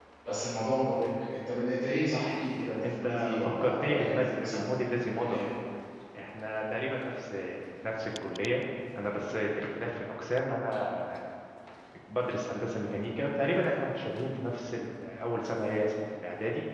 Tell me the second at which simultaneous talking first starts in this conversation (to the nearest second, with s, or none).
3 s